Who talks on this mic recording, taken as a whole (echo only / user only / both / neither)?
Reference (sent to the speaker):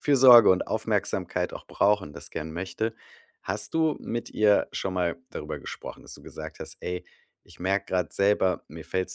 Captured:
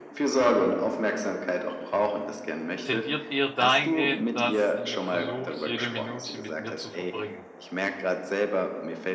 both